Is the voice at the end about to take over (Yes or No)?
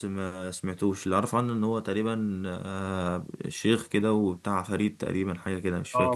Yes